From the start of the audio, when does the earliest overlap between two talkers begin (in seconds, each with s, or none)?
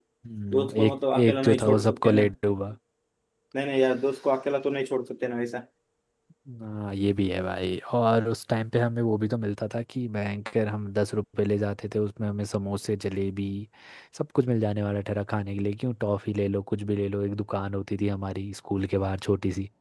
0.5 s